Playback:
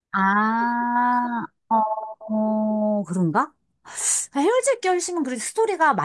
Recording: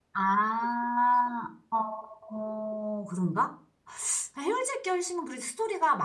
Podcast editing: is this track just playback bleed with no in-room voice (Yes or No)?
Yes